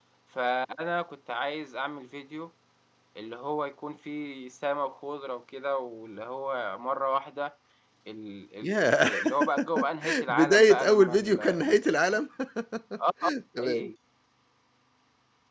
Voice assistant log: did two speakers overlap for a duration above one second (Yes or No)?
Yes